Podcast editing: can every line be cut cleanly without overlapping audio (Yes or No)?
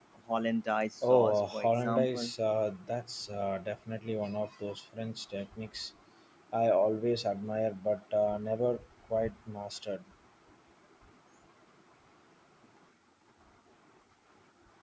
No